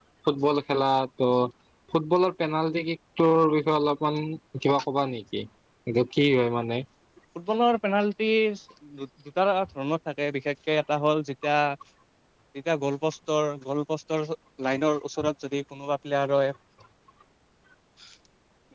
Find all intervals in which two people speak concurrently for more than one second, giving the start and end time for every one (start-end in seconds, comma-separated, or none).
none